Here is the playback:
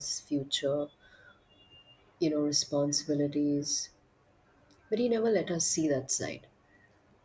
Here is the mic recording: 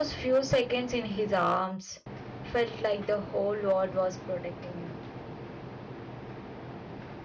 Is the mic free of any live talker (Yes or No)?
No